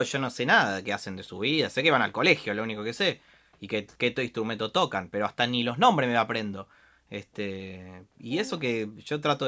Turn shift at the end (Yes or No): No